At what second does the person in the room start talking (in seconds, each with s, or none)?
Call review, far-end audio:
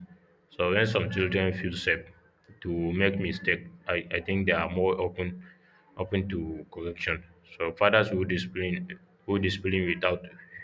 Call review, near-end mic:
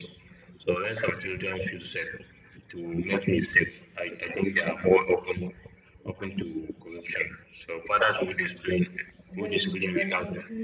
9.3 s